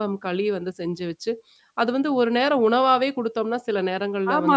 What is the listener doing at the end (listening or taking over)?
taking over